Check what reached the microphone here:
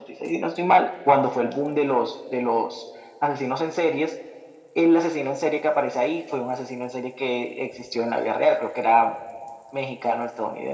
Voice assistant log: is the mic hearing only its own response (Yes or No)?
Yes